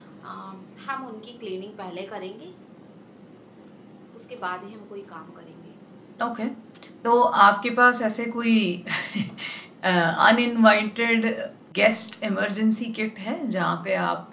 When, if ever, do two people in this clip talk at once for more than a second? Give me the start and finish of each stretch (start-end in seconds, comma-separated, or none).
none